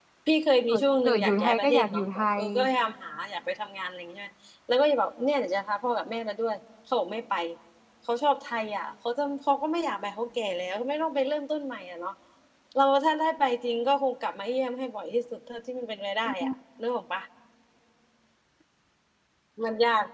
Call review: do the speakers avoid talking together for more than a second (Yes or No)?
No